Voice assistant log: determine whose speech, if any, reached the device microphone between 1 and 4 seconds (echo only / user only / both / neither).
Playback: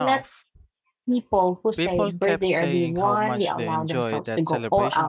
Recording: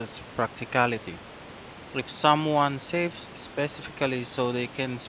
user only